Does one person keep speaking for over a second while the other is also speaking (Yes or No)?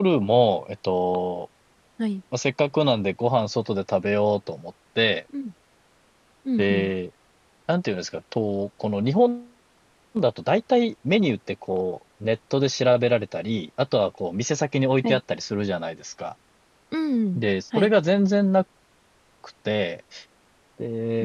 No